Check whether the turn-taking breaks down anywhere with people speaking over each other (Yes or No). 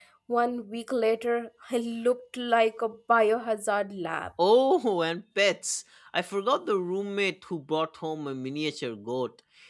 No